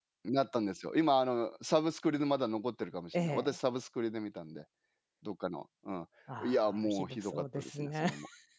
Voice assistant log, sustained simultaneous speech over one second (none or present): present